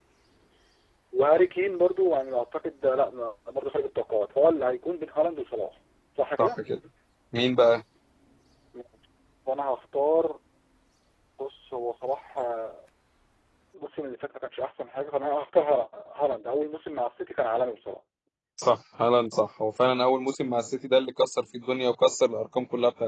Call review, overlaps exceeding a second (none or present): none